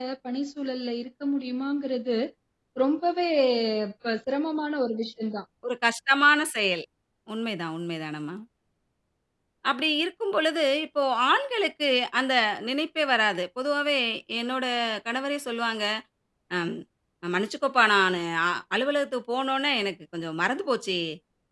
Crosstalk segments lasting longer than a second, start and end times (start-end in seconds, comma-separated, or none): none